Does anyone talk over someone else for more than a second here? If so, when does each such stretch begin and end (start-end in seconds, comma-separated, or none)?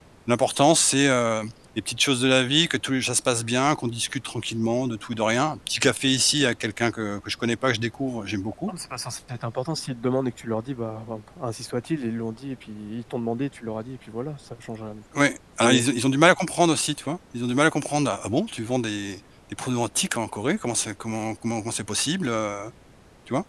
none